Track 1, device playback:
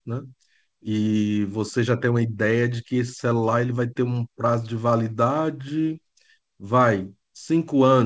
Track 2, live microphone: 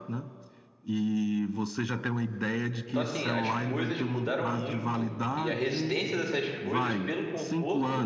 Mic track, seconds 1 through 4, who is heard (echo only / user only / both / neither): both